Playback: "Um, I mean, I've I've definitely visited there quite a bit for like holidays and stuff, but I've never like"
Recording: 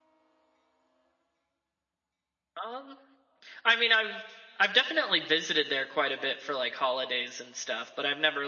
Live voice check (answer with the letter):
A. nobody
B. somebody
A